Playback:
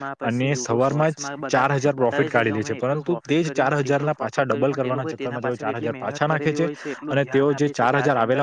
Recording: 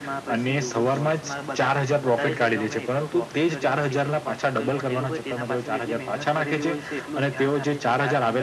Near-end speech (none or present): none